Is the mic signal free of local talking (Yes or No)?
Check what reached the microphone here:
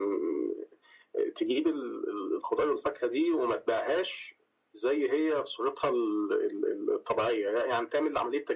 Yes